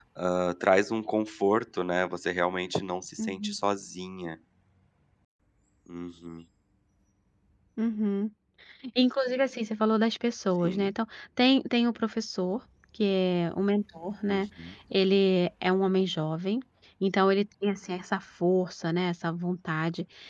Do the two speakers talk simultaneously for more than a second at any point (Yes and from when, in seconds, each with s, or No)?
No